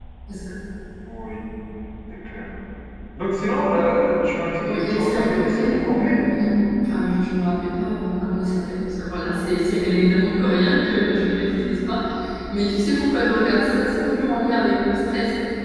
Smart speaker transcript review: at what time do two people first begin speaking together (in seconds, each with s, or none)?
4.7 s